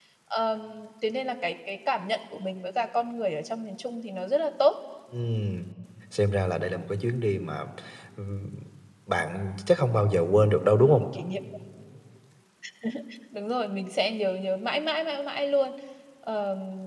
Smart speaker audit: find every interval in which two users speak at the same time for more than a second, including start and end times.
none

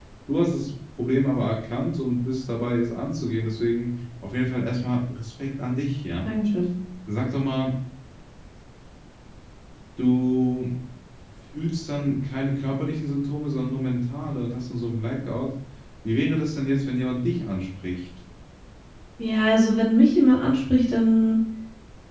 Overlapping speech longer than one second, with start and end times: none

